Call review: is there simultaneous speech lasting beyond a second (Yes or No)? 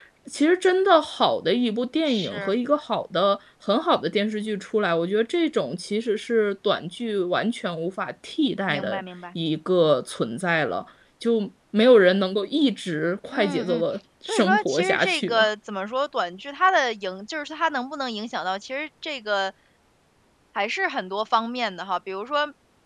Yes